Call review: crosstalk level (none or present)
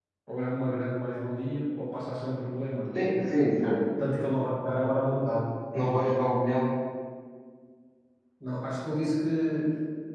none